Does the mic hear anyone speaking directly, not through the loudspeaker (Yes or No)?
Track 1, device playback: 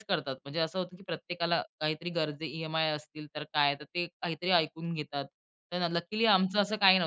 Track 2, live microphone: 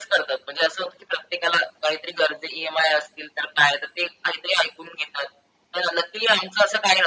No